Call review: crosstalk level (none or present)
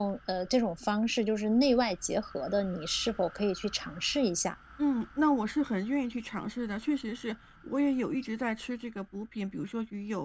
none